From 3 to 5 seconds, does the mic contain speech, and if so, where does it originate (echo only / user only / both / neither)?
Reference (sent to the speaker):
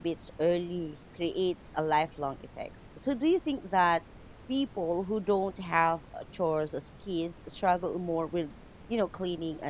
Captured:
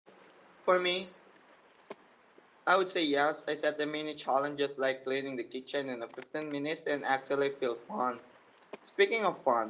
user only